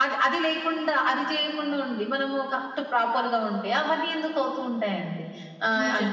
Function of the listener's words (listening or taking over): listening